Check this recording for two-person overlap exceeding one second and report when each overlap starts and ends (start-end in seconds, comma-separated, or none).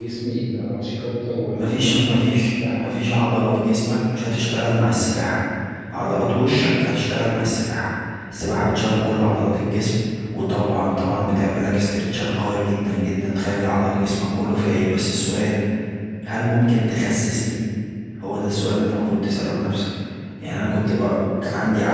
1.6-2.9